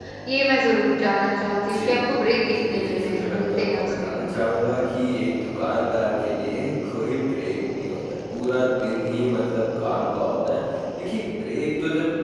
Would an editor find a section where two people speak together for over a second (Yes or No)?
Yes